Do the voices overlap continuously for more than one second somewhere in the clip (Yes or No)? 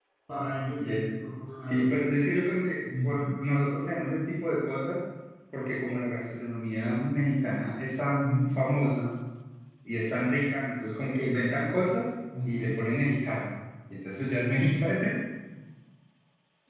No